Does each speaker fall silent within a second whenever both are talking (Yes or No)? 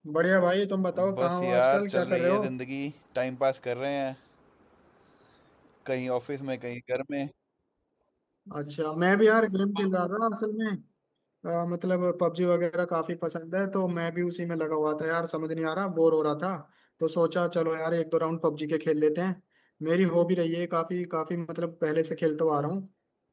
No